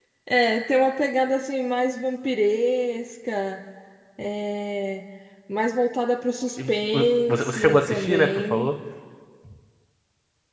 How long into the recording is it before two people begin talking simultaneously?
6.6 s

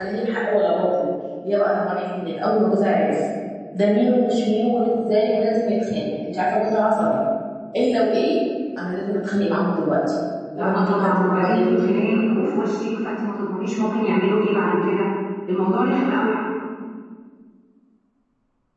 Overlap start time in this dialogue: 10.5 s

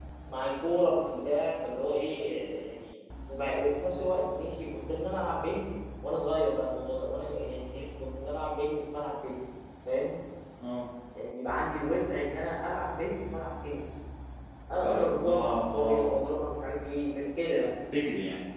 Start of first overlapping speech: 14.8 s

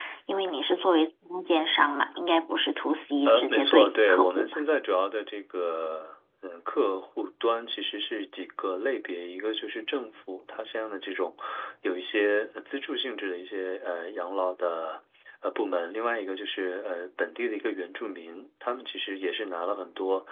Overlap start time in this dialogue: 3.2 s

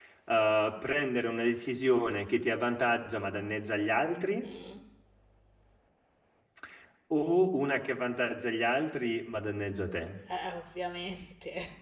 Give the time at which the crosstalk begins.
none

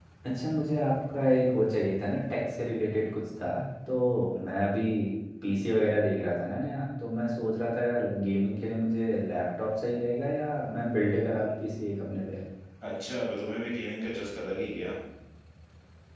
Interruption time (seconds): none

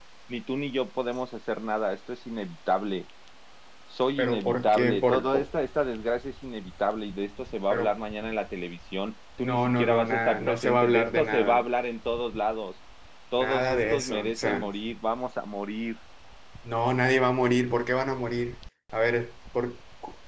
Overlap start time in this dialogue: 4.2 s

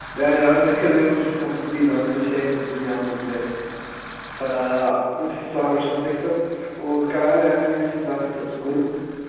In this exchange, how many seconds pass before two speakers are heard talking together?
none

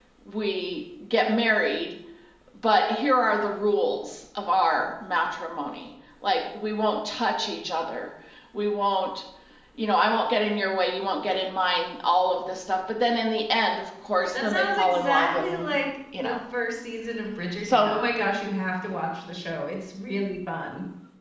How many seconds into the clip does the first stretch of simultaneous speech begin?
14.3 s

